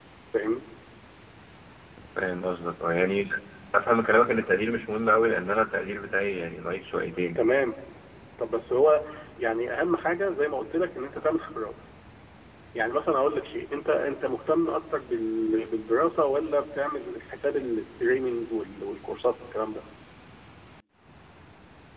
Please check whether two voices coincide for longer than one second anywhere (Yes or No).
No